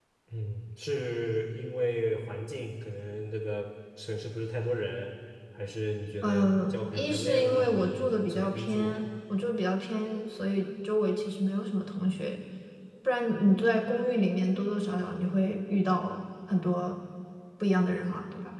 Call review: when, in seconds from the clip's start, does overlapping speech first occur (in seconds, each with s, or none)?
6.2 s